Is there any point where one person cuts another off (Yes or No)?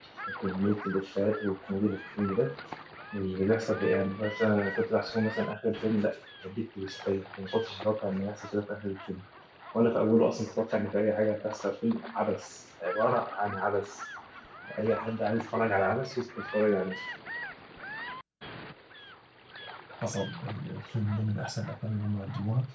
No